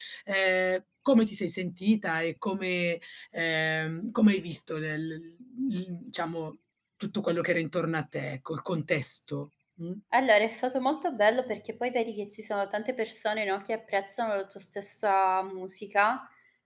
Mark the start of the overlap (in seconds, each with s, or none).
none